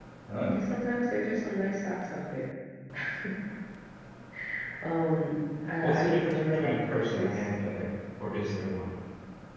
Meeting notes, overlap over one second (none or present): present